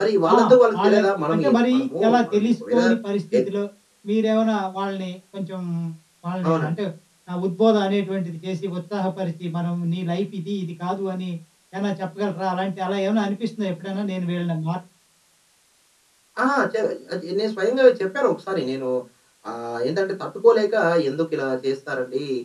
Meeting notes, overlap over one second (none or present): present